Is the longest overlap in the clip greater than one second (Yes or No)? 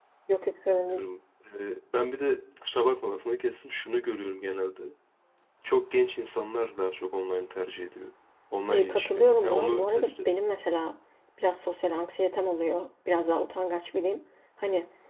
Yes